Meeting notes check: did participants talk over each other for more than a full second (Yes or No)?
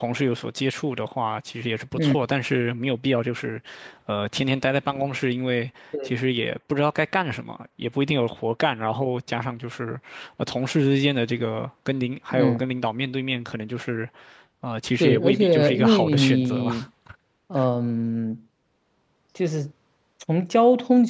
Yes